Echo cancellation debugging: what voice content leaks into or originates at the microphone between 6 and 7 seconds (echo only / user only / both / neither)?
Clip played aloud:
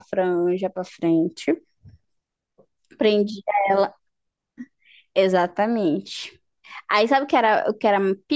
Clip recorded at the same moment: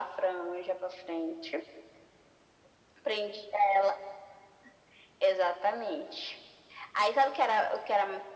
echo only